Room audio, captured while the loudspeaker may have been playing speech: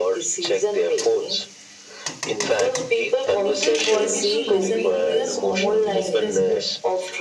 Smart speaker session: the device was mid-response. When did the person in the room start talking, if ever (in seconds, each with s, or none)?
3.2 s